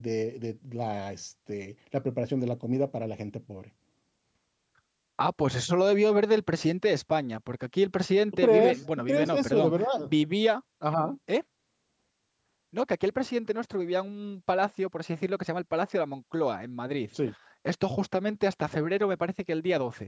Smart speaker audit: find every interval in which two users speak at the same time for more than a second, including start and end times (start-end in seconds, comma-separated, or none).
8.4-10.1